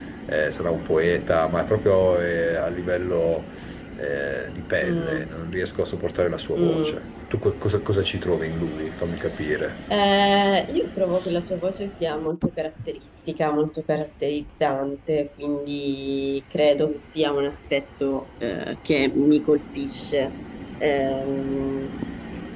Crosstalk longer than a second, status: none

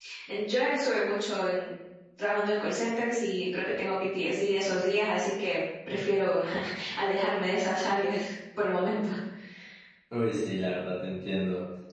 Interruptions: none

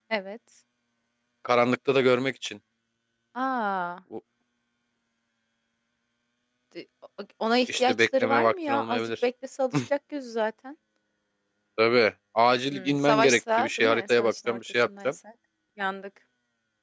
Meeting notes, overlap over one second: present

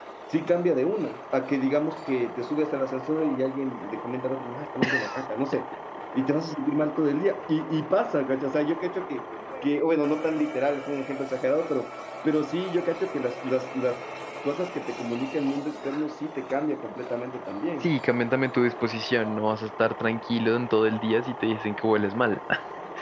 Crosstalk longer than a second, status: none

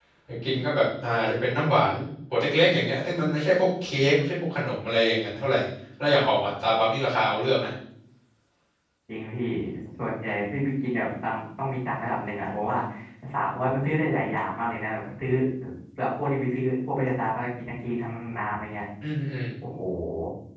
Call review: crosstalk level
none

